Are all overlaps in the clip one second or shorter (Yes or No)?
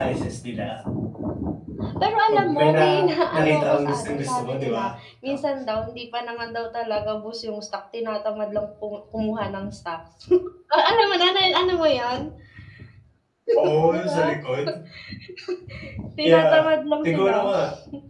No